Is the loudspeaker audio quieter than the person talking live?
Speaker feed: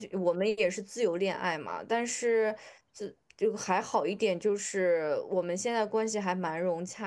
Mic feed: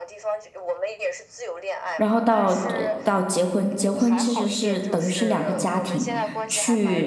Yes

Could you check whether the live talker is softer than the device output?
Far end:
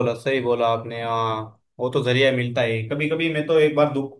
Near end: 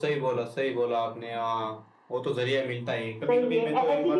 No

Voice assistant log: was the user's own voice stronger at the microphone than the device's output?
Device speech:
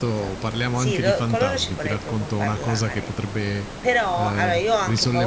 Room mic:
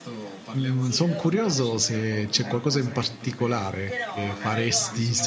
Yes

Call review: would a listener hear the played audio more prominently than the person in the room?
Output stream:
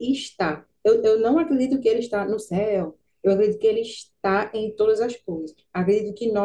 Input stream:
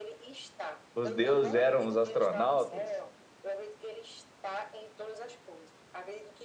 No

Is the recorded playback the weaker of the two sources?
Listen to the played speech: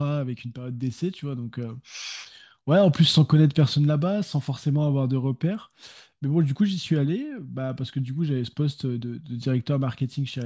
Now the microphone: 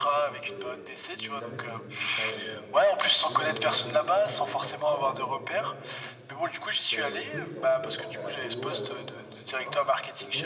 No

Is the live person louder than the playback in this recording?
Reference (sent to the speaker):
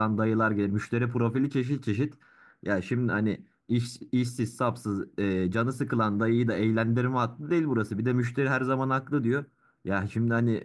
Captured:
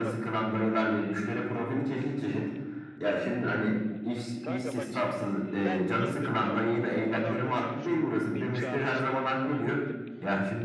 No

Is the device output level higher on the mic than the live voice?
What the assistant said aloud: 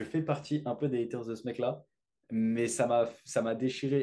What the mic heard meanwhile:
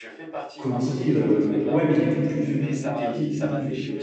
No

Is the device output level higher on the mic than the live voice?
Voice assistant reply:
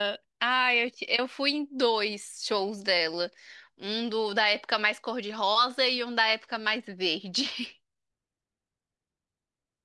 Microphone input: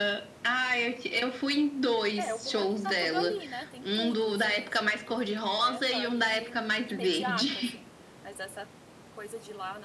Yes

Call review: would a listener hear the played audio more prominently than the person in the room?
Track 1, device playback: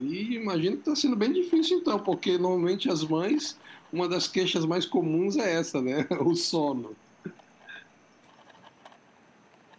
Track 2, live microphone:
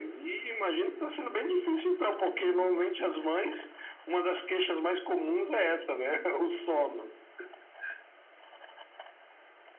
Yes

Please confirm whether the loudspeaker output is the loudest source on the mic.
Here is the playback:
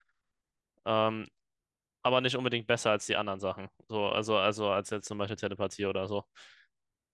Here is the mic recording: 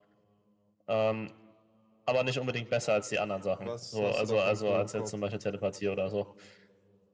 Yes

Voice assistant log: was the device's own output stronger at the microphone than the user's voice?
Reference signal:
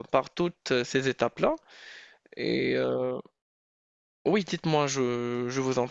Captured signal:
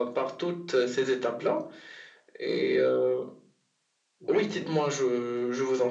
Yes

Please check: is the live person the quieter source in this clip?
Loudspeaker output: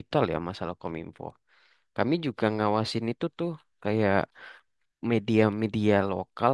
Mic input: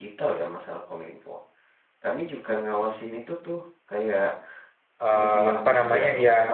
No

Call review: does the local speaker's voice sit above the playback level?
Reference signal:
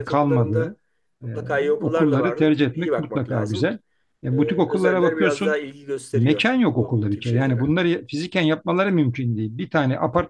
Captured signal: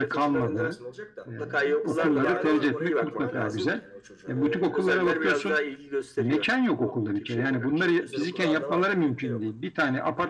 No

